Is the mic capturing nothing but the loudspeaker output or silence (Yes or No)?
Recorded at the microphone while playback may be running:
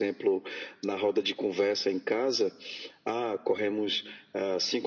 Yes